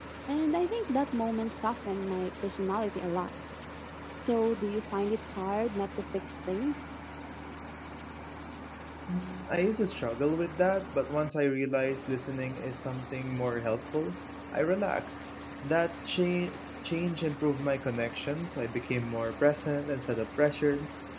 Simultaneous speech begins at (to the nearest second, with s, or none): none